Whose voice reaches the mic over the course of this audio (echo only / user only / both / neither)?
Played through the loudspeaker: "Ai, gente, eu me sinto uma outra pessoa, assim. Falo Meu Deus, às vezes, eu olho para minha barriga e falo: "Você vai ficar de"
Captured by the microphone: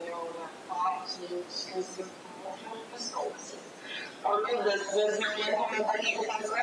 echo only